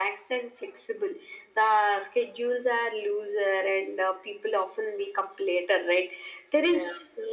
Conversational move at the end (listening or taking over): listening